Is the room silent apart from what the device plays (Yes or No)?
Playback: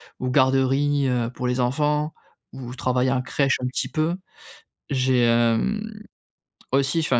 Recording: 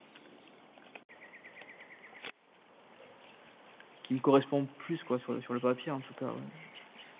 No